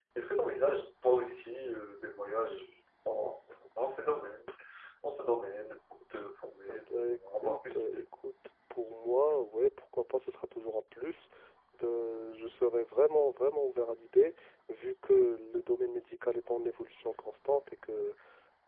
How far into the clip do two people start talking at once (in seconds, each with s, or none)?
6.7 s